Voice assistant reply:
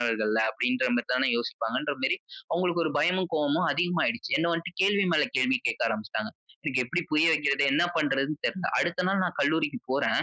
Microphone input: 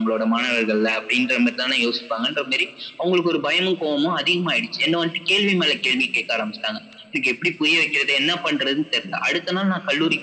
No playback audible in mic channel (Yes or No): No